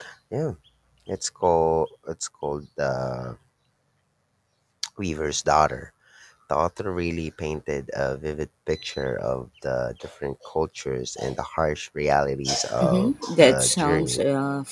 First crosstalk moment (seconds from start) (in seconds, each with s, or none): 12.8 s